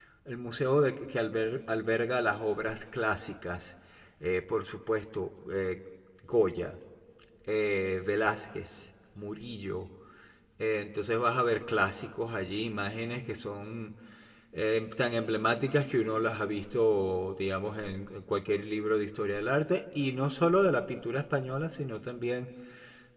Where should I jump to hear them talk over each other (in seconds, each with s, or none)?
none